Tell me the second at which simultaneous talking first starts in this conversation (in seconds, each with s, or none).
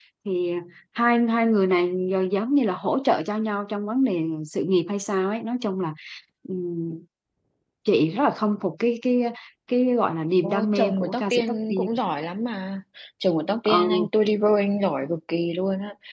10.4 s